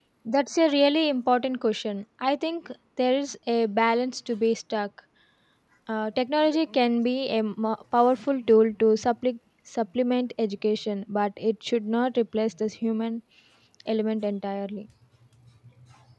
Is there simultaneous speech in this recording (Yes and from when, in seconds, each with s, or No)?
No